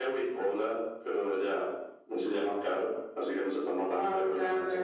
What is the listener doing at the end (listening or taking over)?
taking over